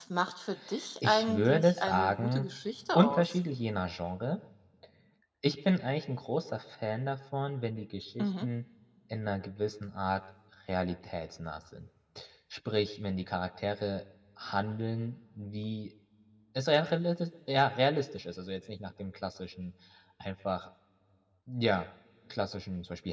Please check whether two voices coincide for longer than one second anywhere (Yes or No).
Yes